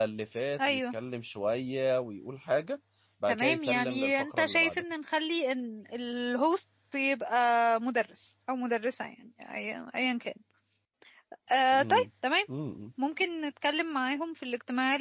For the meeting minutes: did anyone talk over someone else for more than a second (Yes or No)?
Yes